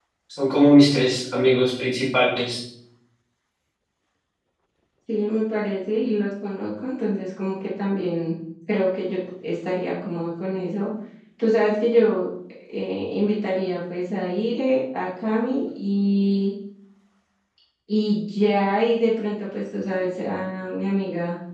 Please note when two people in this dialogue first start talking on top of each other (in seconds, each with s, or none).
none